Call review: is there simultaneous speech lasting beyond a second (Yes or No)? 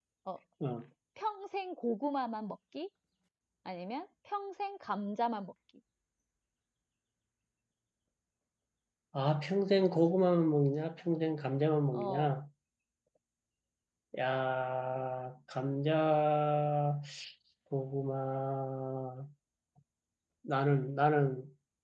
No